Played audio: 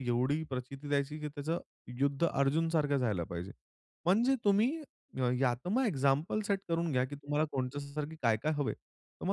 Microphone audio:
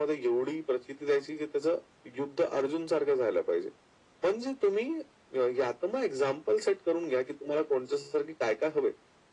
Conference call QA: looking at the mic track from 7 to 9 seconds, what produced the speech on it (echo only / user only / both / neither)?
echo only